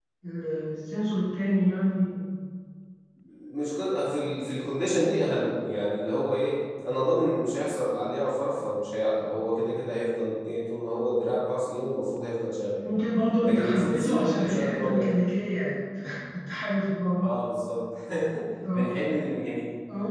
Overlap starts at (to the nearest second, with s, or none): 13 s